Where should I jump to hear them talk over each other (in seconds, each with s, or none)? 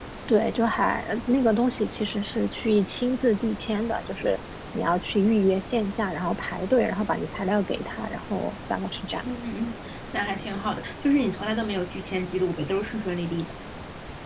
none